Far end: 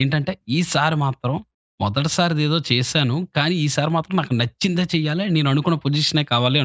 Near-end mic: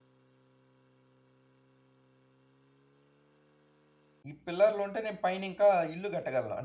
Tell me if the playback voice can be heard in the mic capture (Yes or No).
No